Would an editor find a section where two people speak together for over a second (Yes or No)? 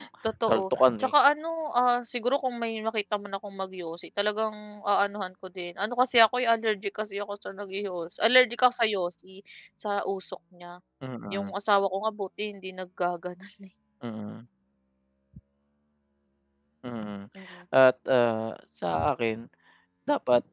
No